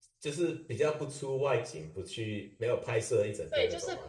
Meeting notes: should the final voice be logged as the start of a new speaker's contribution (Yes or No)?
Yes